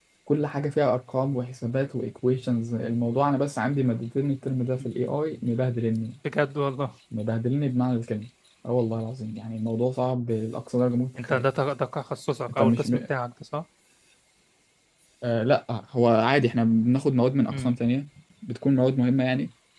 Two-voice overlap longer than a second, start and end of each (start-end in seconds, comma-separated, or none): none